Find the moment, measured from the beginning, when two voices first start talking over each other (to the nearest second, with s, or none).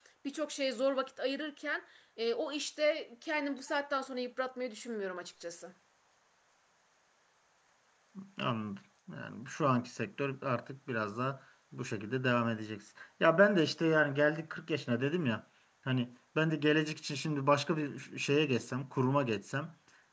none